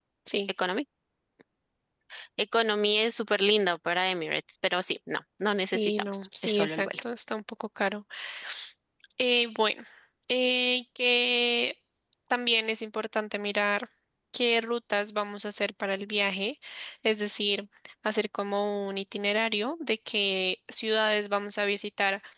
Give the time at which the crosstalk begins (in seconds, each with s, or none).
5.6 s